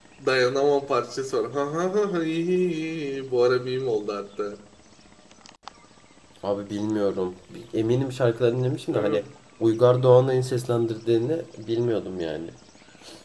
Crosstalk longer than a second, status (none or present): none